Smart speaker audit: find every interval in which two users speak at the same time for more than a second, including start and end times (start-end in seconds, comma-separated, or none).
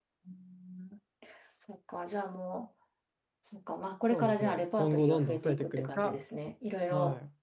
4.1-6.2